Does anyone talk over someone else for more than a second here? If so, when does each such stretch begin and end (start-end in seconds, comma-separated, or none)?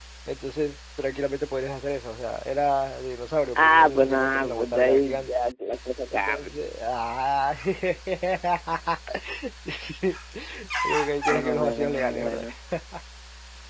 3.5-5.3, 11.3-12.5